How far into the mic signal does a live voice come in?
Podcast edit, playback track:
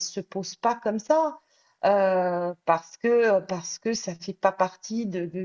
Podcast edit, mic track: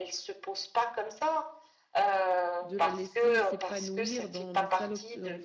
3 s

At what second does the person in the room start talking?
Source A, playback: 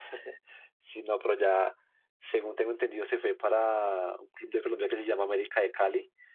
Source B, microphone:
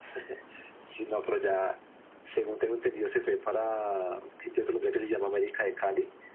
none

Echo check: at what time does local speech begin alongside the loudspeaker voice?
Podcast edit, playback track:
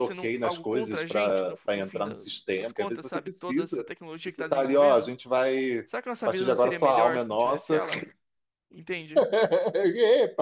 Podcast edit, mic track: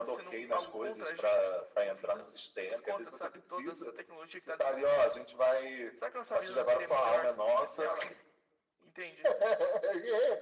none

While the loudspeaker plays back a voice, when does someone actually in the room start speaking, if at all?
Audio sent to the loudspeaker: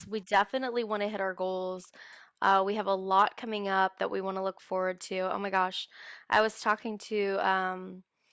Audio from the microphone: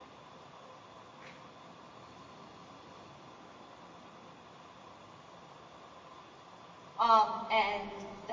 7 s

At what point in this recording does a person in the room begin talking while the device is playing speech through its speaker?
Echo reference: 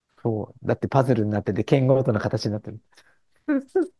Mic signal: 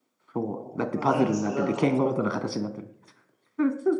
0 s

